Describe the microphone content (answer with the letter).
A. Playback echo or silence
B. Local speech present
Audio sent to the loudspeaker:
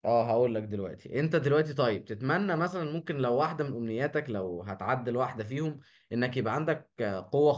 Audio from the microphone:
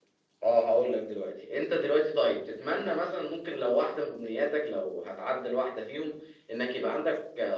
A